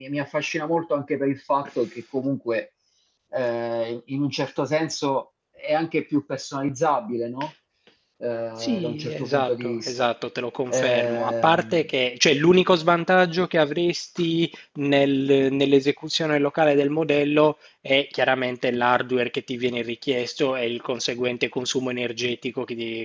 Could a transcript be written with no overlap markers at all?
No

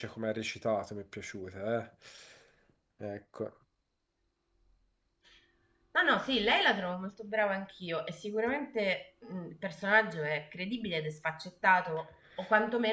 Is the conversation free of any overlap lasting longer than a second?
Yes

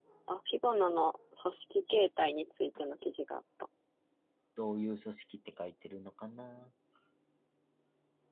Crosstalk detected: No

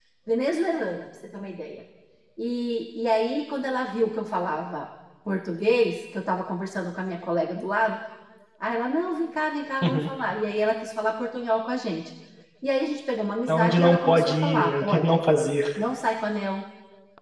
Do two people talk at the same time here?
Yes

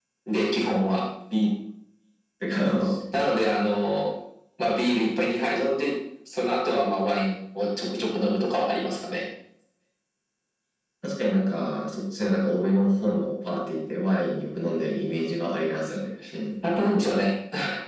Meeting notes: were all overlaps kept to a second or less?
Yes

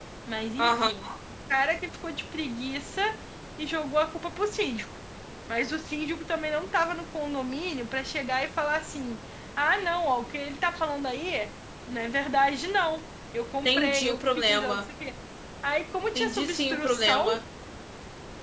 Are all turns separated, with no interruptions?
No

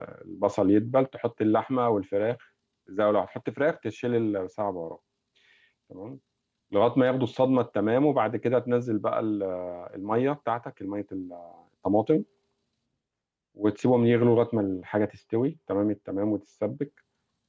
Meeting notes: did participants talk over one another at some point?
No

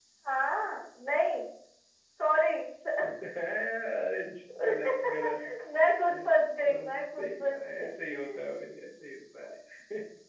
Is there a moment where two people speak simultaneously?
Yes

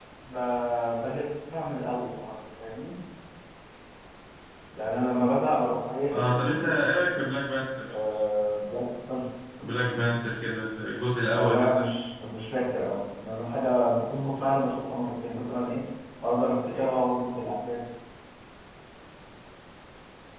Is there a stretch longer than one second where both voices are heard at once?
No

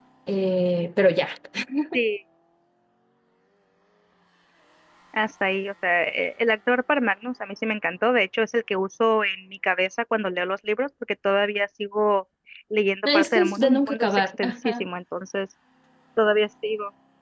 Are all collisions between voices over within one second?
No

